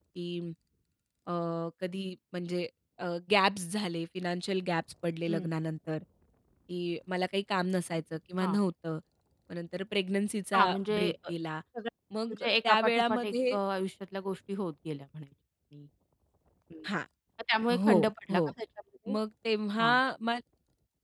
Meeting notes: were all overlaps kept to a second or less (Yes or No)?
No